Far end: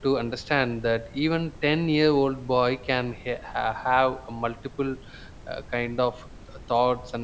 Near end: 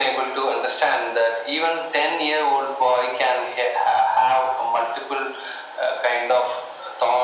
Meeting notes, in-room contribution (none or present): none